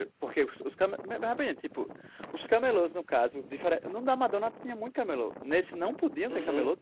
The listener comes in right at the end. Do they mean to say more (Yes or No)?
Yes